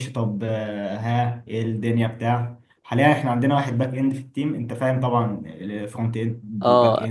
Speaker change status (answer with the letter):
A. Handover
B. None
A